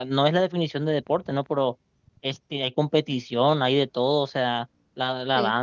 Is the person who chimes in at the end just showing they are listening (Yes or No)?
Yes